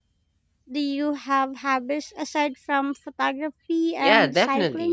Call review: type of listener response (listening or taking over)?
taking over